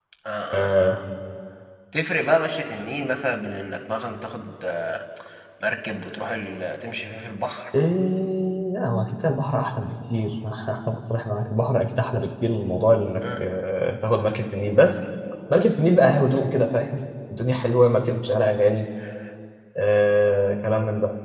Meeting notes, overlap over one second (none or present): none